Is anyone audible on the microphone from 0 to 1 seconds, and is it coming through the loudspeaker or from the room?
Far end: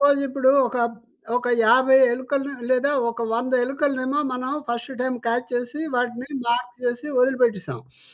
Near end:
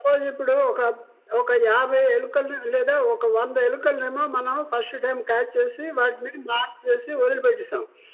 echo only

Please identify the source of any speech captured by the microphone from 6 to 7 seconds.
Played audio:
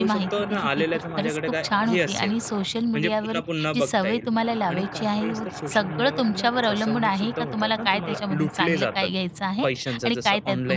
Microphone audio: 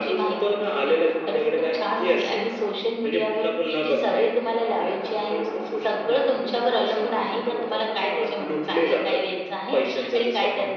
echo only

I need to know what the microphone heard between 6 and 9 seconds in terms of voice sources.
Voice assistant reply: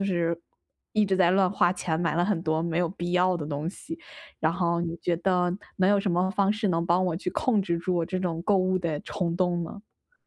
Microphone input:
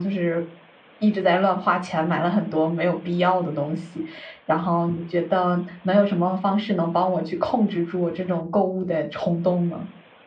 echo only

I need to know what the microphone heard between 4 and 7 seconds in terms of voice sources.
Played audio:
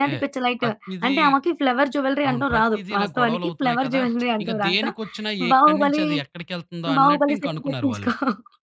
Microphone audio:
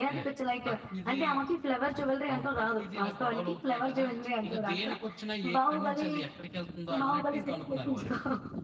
echo only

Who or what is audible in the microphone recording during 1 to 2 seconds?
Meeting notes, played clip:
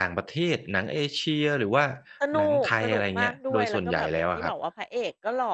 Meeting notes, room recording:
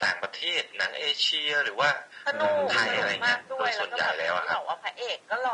echo only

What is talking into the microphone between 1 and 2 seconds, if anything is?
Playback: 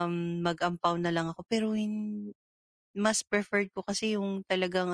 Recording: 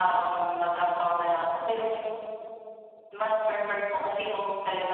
echo only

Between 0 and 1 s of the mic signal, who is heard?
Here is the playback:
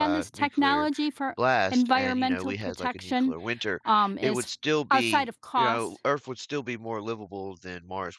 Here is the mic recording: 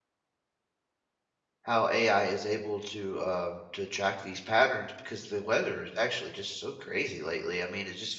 neither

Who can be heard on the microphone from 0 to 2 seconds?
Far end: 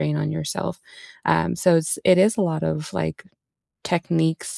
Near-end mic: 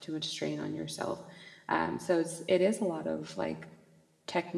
echo only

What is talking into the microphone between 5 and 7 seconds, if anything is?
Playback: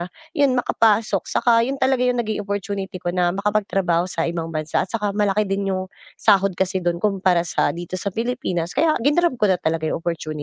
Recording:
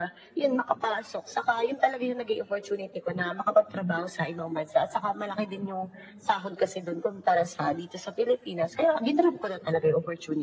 echo only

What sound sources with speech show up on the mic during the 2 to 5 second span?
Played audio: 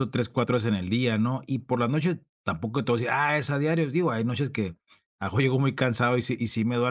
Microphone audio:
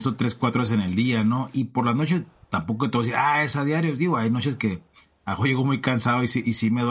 echo only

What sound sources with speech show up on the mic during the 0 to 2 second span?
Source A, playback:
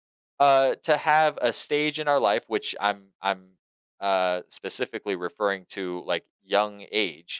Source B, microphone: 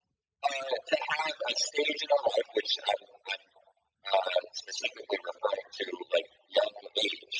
echo only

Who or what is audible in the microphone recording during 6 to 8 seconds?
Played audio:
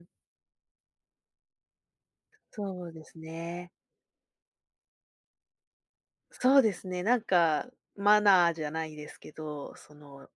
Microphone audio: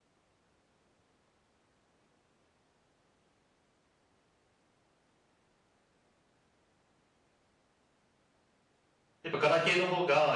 neither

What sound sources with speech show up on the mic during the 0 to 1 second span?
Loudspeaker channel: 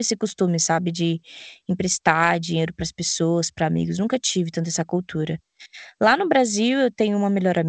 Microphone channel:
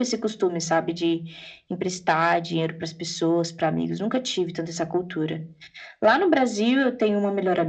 echo only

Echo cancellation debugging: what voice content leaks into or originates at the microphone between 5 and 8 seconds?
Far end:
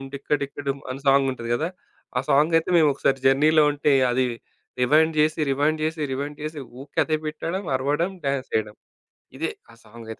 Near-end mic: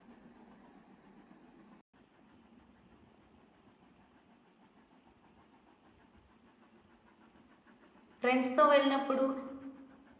neither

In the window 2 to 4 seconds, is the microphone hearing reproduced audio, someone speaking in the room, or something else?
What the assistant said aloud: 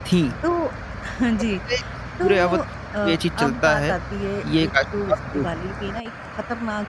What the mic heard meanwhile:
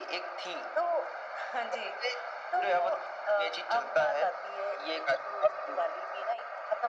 echo only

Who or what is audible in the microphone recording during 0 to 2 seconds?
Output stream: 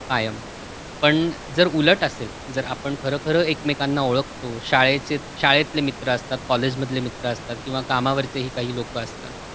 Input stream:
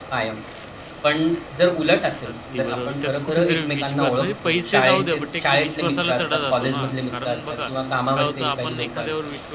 echo only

